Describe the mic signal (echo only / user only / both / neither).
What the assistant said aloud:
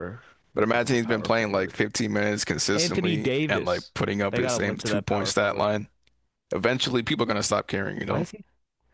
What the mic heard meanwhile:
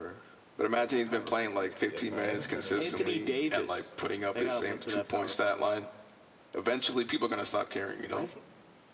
both